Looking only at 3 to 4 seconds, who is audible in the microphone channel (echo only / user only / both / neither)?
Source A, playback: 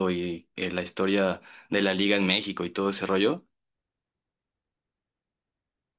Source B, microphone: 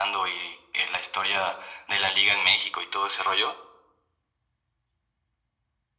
echo only